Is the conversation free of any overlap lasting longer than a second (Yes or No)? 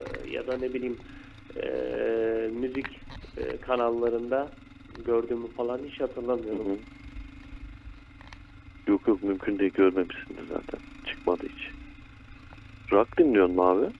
Yes